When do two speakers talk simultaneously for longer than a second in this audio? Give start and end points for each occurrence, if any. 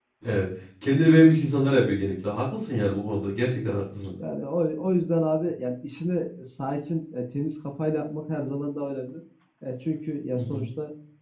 none

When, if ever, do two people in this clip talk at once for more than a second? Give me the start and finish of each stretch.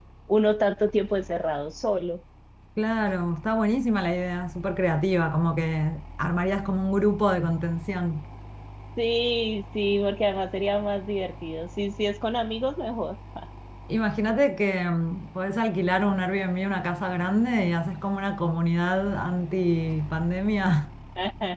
none

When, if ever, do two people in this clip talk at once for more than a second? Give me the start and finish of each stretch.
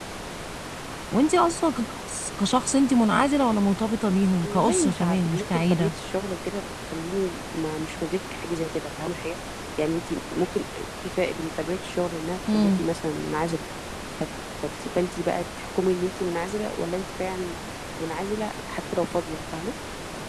4.4-5.9

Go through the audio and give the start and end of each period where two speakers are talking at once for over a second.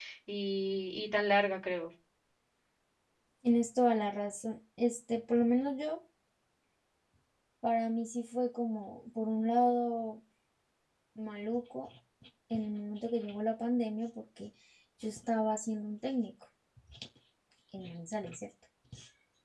none

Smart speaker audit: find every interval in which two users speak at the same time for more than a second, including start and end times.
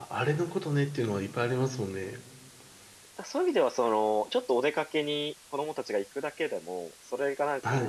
none

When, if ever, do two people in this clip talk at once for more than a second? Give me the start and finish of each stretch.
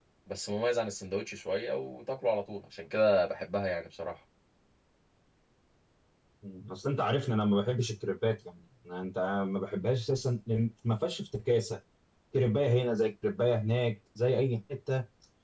none

